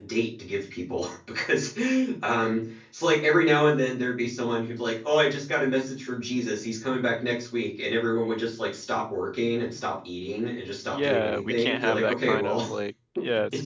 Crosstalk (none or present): present